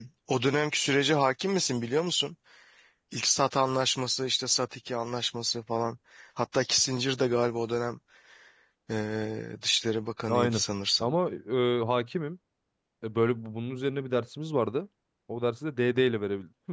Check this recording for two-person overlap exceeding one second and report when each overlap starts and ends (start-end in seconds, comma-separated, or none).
none